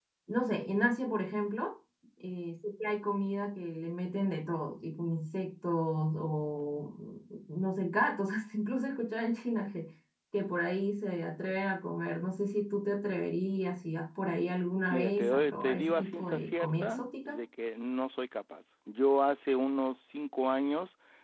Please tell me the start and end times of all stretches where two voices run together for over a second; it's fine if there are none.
14.9-17.4

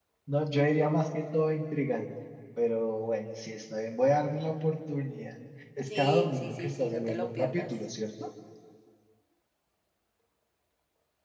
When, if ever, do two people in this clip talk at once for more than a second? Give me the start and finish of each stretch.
5.9-7.7

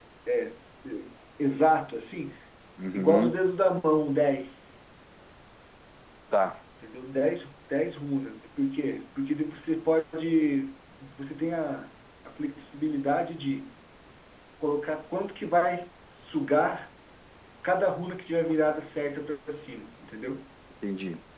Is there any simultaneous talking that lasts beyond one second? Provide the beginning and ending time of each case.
none

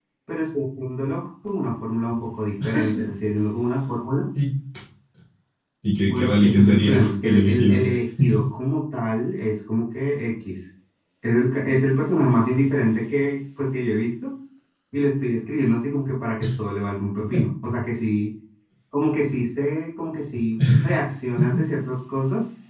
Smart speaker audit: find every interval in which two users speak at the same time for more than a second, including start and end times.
6.0-7.8

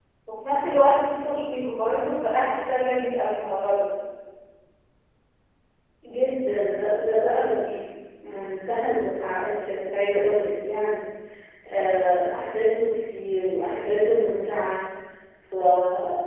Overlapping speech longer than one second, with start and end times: none

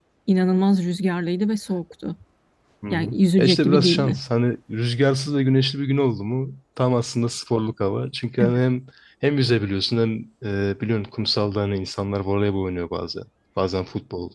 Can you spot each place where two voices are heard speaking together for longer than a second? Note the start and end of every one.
2.9-4.2

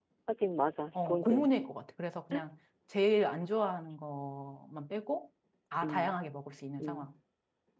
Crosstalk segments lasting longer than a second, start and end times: none

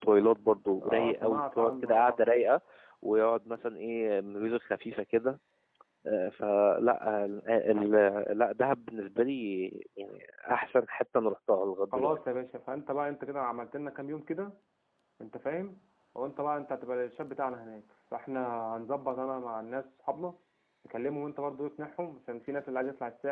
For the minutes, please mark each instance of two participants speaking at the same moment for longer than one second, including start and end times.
0.8-2.3

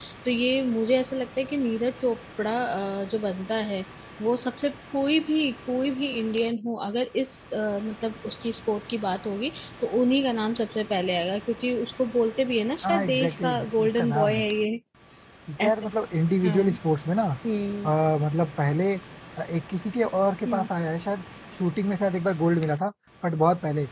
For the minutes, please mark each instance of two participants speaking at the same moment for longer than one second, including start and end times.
12.8-14.5

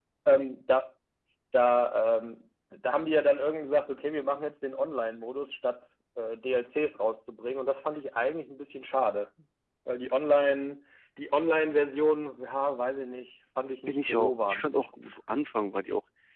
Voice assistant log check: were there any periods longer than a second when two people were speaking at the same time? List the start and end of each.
13.9-15.2

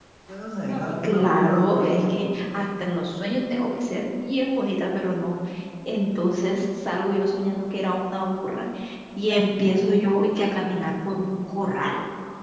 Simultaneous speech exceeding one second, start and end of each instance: 0.7-2.2

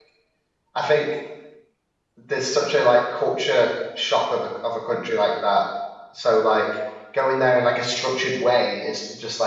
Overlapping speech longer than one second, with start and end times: none

